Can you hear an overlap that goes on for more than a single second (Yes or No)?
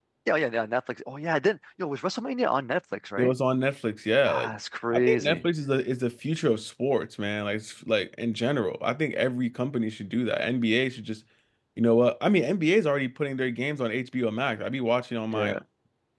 No